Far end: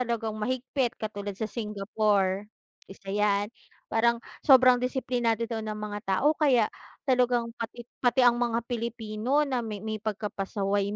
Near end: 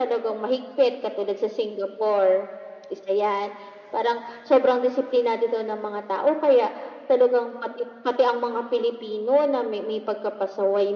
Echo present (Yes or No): Yes